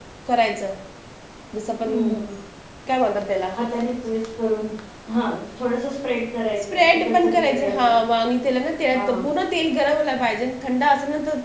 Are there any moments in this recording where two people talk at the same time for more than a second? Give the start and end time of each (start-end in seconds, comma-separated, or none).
6.7-7.9